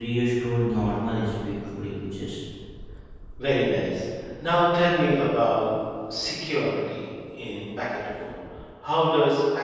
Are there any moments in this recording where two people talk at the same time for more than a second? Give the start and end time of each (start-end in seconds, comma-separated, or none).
none